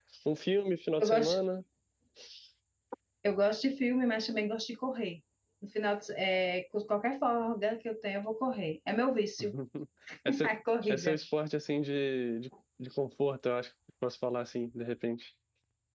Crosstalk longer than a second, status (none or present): none